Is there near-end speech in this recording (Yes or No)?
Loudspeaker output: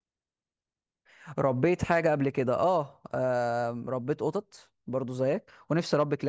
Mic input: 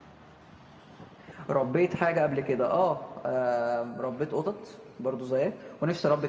No